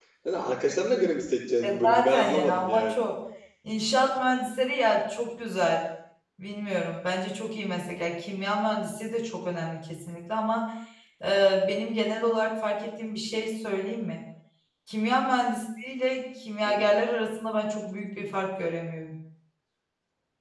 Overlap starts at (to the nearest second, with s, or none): 2 s